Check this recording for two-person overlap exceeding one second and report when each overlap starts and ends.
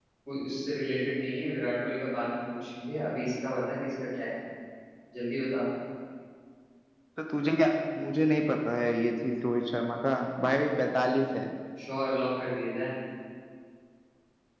none

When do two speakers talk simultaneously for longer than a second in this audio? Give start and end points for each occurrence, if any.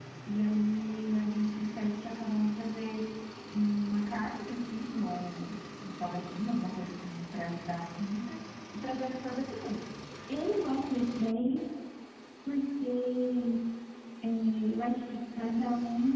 none

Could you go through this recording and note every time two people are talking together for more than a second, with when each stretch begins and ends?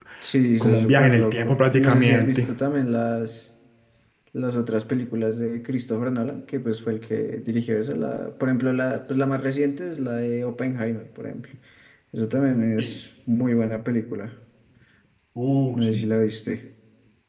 0.6-2.5

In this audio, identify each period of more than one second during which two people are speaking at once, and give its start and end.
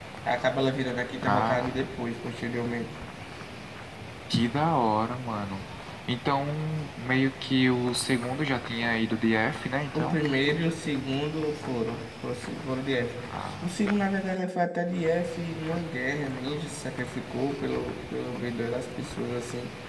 none

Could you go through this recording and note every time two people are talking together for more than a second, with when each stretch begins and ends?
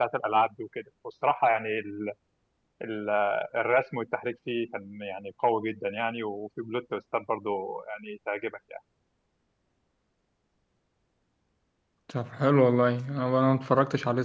none

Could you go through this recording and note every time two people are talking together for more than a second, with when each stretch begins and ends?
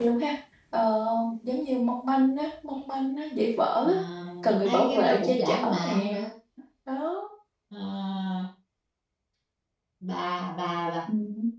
4.6-6.2

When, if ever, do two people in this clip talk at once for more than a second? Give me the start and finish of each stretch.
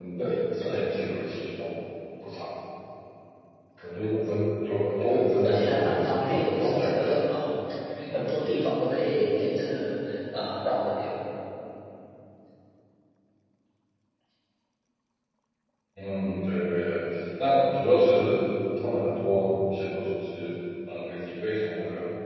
5.1-7.1

